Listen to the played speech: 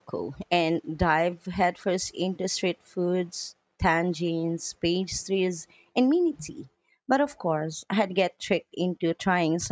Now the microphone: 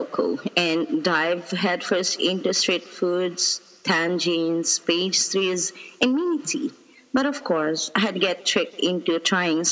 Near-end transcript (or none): none